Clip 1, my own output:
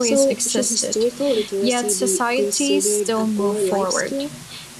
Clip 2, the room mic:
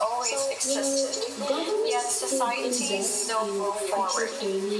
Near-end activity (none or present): present